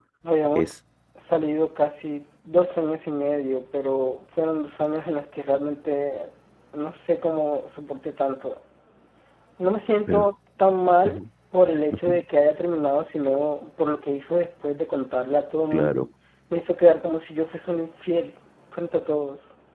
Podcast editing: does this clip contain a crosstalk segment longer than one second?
No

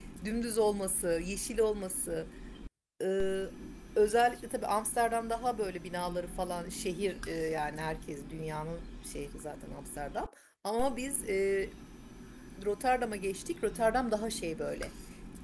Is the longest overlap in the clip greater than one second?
No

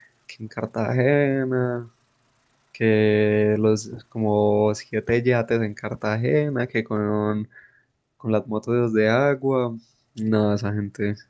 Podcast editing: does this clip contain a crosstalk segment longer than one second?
No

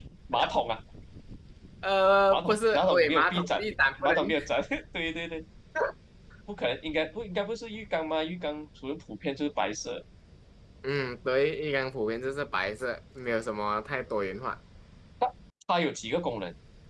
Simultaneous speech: Yes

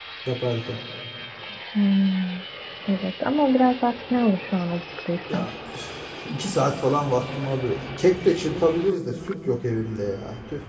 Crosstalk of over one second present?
No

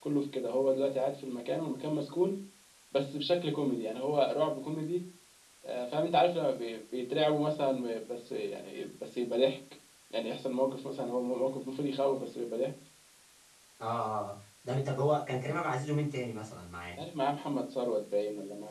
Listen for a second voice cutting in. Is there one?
No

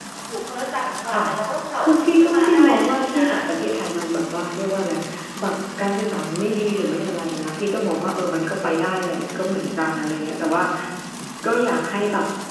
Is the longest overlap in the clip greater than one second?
Yes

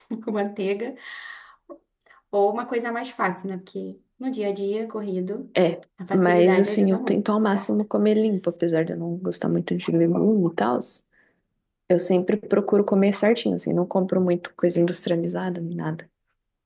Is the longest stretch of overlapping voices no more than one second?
No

